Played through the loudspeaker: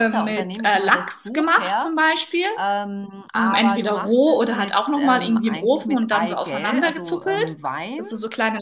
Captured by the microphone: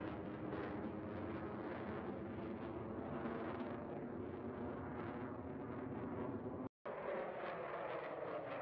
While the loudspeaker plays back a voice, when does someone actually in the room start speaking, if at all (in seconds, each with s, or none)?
none